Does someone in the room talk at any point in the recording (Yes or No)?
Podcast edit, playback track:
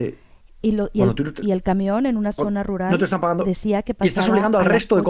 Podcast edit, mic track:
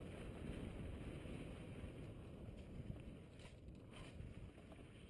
No